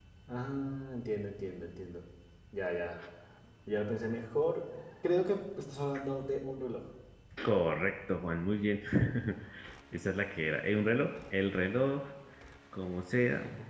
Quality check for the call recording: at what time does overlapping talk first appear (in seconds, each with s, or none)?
none